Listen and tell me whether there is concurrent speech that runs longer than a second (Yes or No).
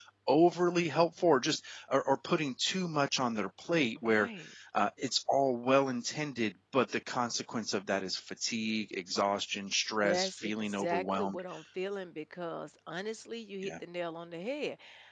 Yes